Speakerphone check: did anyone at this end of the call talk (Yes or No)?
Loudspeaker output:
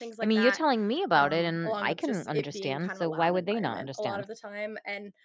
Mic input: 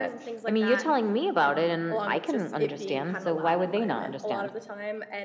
No